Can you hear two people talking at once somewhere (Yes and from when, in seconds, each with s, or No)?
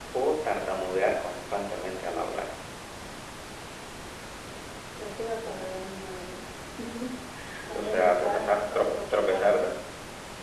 Yes, from 7.7 s